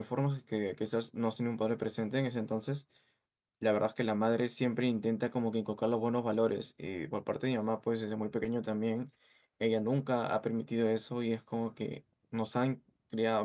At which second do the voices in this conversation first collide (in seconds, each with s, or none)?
none